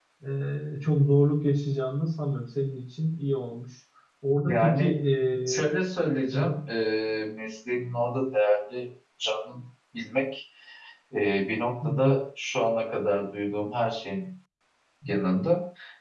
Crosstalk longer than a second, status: none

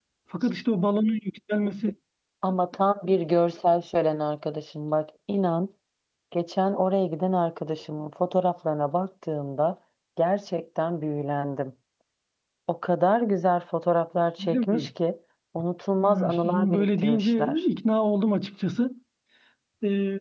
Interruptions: present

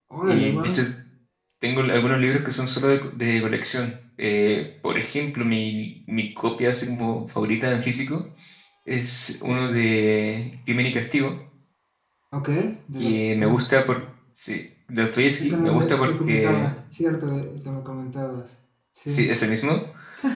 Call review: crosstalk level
present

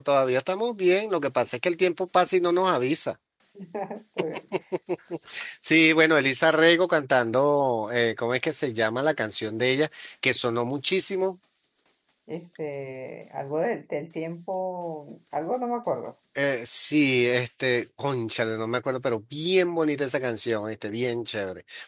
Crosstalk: none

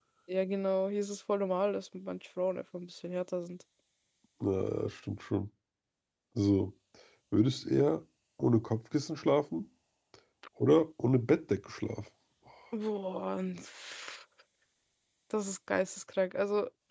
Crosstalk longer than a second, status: none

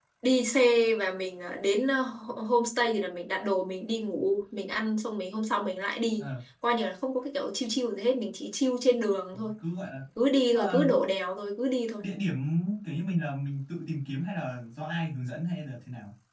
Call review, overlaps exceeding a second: none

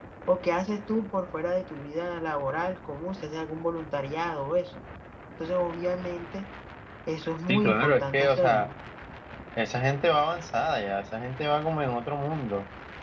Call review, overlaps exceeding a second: present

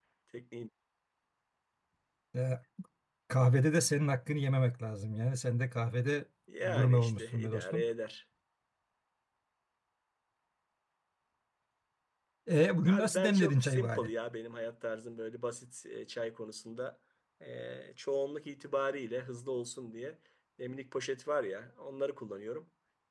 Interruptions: present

